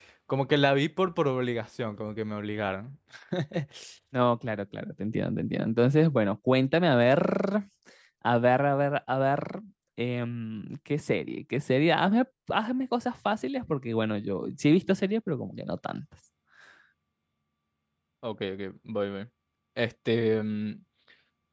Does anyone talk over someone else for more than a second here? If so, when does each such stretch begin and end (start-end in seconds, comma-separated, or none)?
none